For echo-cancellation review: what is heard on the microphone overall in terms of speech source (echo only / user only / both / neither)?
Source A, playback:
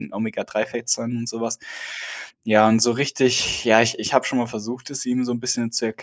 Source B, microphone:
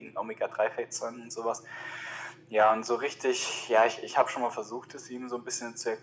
echo only